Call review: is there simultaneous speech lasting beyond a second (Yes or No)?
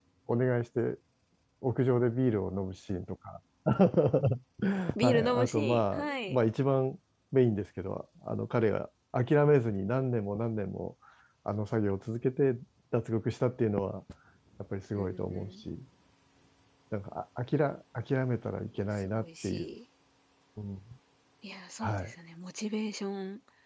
Yes